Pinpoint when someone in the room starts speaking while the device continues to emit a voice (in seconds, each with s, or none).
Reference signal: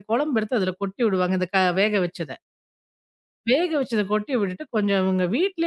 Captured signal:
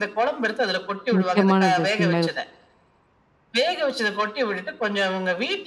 1.1 s